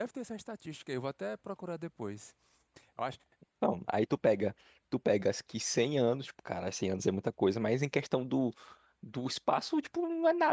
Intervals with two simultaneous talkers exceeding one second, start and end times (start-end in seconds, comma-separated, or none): none